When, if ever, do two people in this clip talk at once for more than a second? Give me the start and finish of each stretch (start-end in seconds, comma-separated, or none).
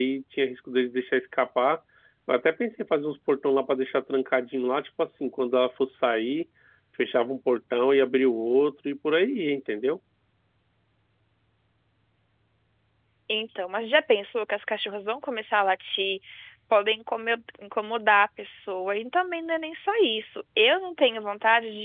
none